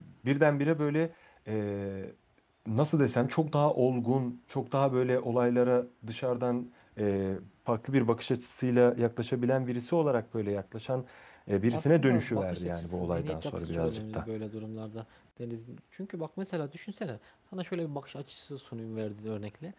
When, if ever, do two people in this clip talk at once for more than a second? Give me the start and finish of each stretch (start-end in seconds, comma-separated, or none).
11.7-14.2